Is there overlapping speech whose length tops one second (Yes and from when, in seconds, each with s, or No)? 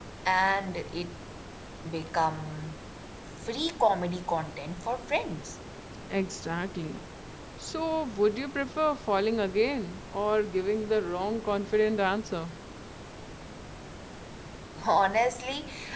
No